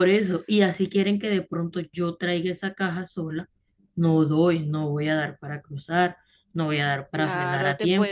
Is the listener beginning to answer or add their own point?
Yes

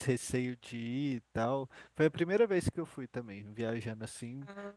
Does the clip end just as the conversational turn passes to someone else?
No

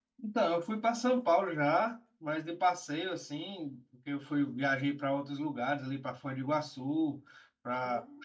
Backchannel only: Yes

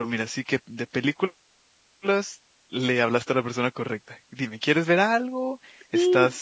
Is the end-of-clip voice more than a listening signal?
Yes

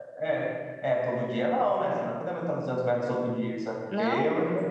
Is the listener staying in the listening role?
Yes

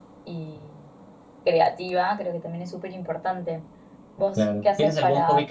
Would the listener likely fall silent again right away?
No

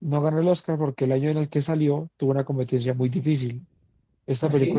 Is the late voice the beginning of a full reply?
No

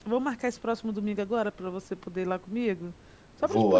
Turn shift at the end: Yes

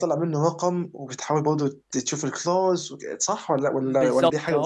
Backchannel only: No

